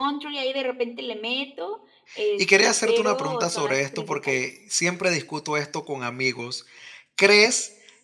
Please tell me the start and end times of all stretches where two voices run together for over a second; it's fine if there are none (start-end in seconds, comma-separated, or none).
2.4-4.4